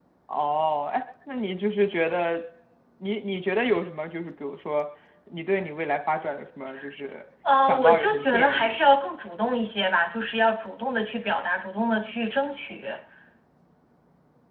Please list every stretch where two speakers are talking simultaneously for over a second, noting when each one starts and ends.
7.6-8.9

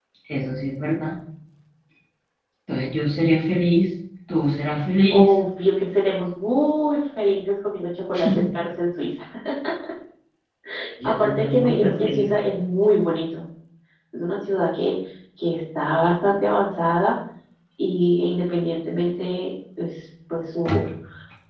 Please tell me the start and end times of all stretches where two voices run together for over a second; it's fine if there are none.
11.0-12.3

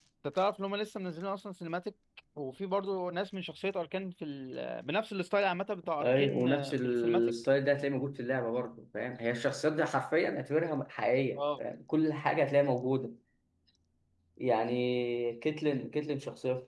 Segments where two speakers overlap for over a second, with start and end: 6.0-7.3

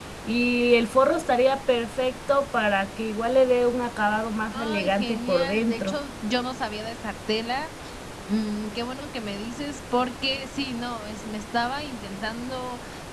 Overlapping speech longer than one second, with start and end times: 4.5-6.0

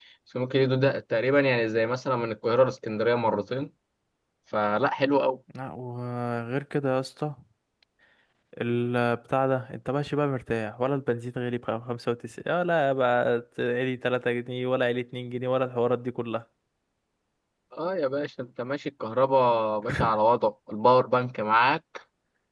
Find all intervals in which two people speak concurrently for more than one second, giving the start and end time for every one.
none

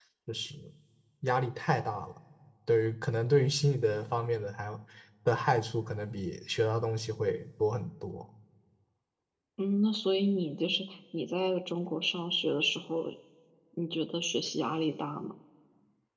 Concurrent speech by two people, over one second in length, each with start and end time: none

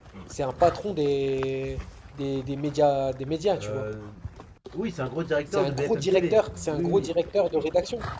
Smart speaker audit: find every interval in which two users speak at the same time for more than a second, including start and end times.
5.5-7.1

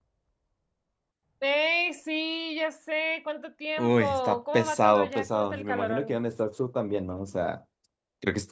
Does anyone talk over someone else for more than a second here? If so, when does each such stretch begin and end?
3.8-6.2

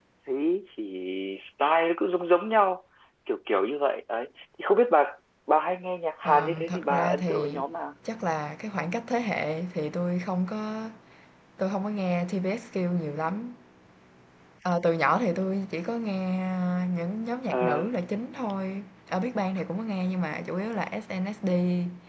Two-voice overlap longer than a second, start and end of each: 6.2-7.5

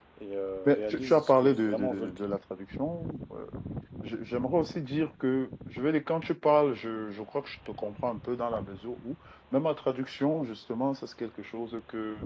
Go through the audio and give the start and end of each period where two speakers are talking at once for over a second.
0.6-2.4

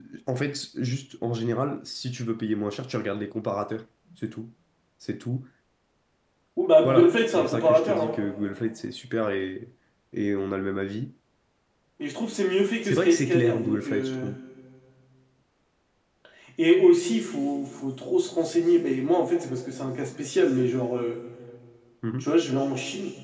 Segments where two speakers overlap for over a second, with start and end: 6.8-8.2, 12.8-14.3

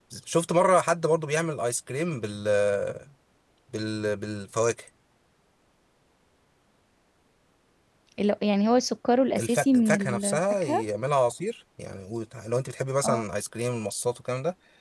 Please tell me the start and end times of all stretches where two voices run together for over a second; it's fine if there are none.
9.4-10.8

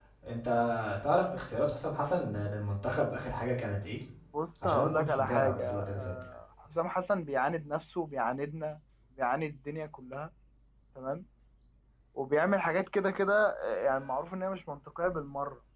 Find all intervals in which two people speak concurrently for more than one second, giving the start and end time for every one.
4.6-6.1

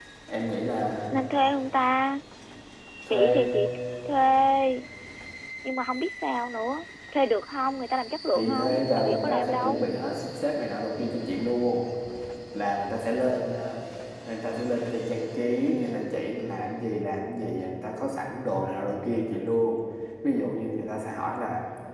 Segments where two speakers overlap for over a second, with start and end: 8.3-9.8

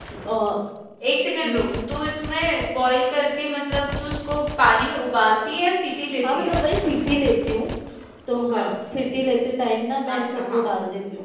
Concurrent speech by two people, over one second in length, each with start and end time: none

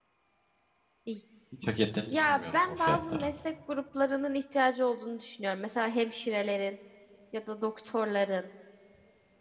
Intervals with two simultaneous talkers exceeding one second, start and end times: 2.1-3.3

